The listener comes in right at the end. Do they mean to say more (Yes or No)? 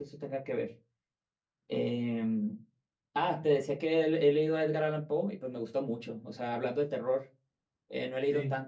No